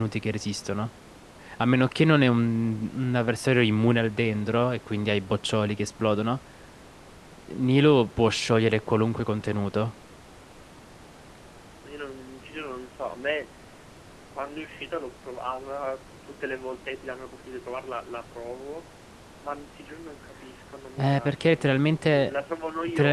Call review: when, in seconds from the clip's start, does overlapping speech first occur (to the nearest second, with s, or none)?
21 s